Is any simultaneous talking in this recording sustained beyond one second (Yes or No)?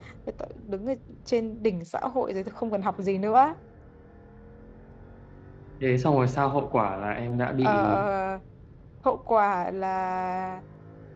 No